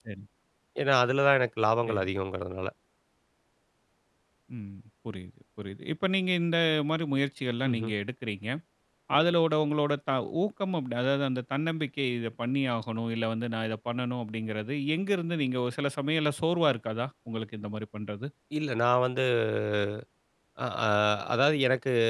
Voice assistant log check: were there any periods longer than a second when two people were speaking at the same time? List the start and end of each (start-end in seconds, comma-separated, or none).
none